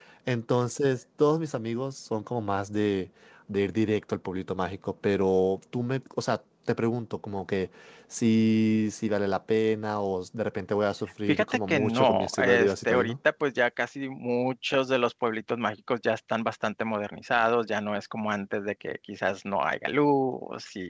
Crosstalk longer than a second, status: present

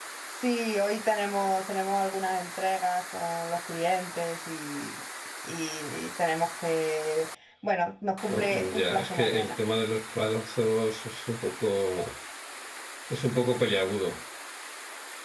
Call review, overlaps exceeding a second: present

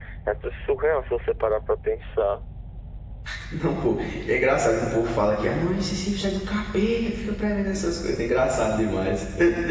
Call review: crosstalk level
none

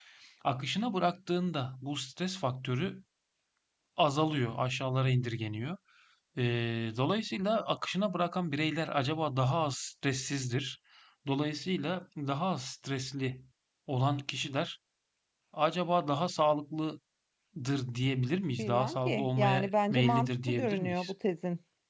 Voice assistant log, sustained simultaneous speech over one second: present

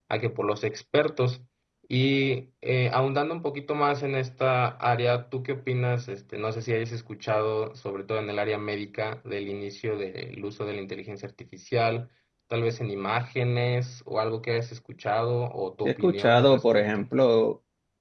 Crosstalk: present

